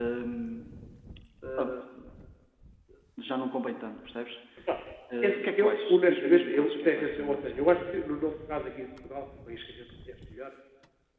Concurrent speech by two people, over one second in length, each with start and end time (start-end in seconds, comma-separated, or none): 5.2-8.0